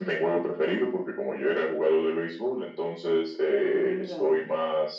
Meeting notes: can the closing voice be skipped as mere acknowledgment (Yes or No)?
Yes